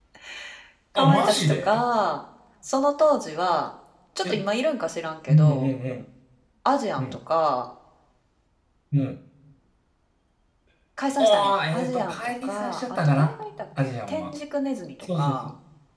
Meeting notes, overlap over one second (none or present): present